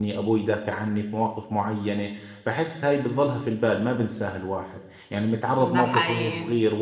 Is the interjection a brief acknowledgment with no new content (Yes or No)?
Yes